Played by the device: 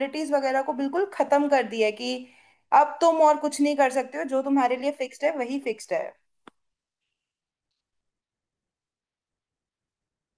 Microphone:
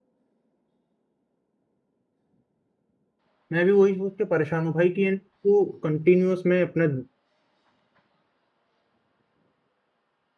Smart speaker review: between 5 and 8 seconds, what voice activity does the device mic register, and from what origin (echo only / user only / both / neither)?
user only